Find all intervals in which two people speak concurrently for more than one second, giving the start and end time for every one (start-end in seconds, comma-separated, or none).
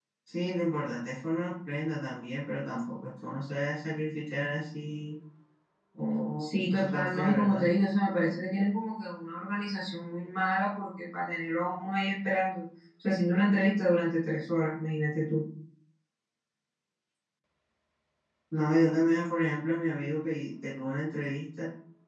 6.4-7.7